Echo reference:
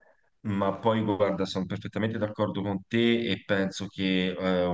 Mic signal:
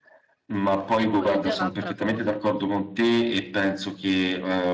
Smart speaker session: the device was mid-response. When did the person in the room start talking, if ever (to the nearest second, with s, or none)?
1 s